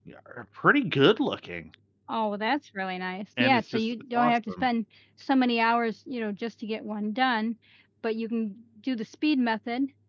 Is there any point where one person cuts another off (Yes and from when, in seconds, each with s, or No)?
Yes, from 3.4 s